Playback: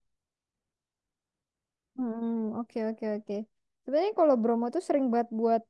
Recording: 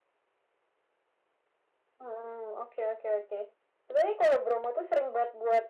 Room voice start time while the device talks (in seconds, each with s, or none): none